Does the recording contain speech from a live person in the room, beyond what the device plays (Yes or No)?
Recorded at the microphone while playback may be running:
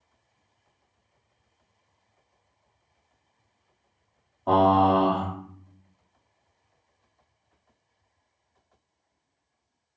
Yes